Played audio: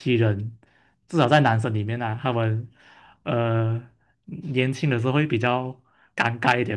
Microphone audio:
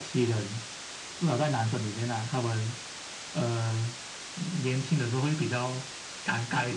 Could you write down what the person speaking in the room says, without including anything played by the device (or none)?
none